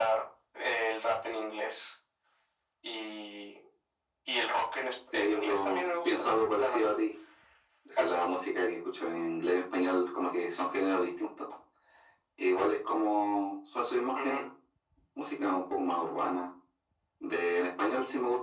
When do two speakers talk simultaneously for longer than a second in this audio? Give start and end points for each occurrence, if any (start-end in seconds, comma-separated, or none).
5.1-6.9